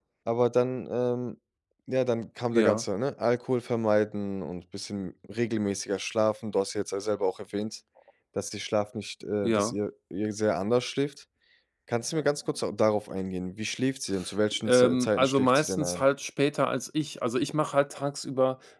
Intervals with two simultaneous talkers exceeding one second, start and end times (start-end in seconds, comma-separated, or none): 14.7-16.0